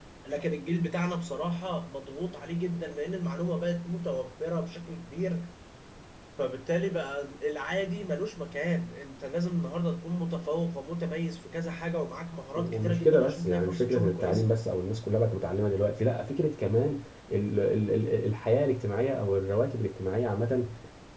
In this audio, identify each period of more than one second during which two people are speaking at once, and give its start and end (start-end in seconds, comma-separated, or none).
12.6-14.4